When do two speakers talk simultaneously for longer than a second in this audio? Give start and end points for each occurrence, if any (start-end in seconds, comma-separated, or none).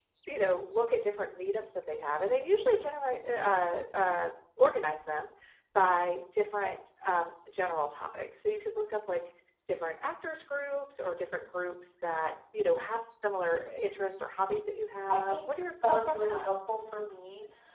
15.1-16.4